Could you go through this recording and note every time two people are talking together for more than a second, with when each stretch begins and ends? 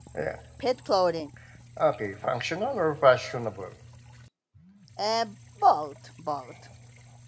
none

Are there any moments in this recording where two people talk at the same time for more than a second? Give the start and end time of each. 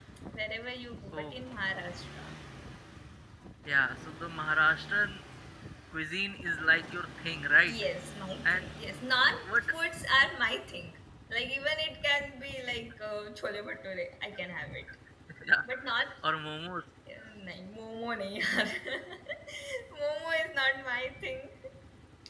none

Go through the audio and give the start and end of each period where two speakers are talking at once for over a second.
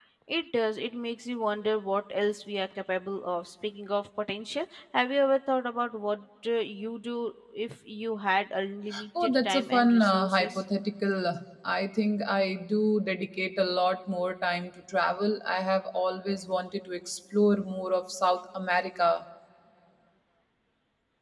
9.2-10.6

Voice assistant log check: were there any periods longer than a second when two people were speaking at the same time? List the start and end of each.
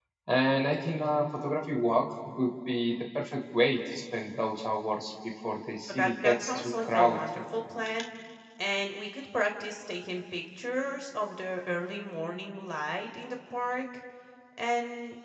5.9-7.4

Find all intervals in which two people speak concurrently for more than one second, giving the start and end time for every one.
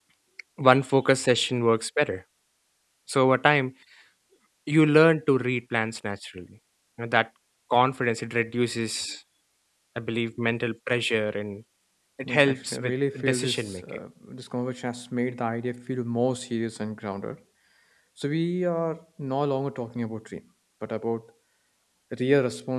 12.3-13.8

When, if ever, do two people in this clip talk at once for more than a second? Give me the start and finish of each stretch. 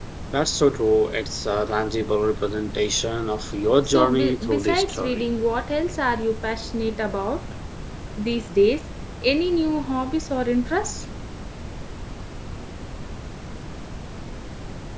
3.9-5.2

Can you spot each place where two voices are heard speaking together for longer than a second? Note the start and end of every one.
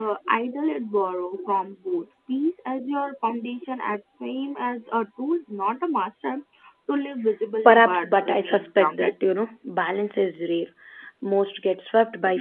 7.6-9.1

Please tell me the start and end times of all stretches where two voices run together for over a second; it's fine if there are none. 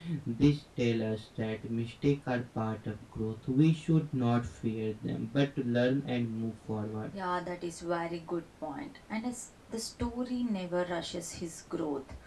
none

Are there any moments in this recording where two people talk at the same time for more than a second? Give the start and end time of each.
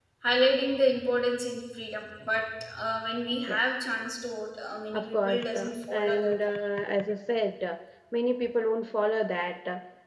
4.9-6.3

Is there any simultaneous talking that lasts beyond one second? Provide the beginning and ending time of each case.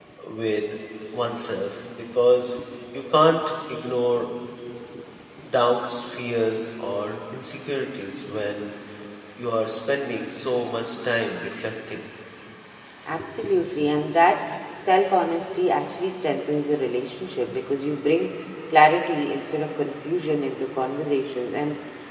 none

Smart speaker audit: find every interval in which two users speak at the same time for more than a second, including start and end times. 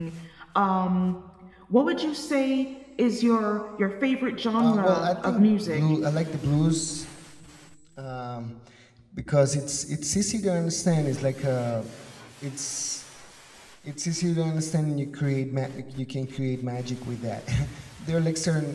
4.6-5.8

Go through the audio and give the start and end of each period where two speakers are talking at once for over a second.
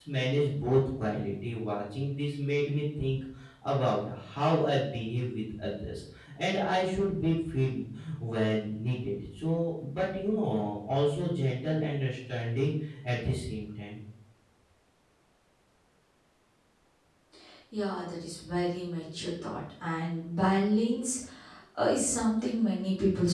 none

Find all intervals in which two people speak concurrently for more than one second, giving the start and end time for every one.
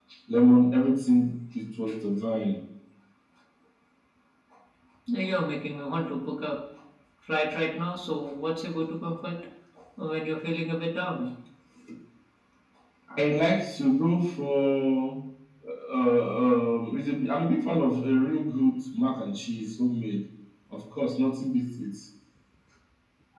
none

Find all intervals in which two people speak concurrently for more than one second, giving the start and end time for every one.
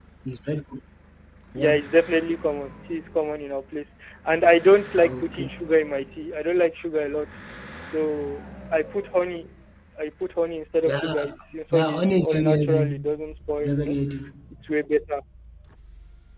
11.7-13.0

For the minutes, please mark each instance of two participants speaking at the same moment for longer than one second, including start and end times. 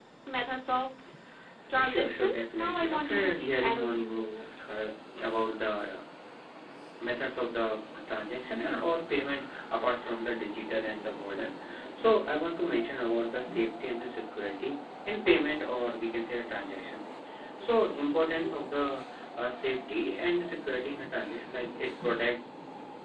1.8-4.3

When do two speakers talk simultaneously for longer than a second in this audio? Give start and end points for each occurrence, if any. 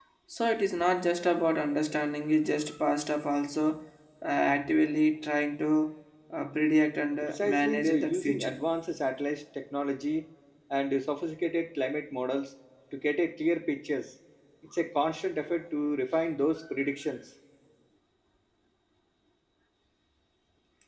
7.2-8.6

